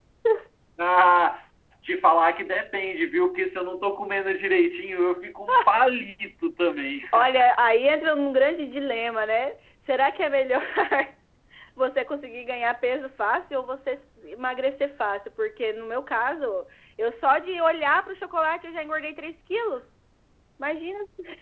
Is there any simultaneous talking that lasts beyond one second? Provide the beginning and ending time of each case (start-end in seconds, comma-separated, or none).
none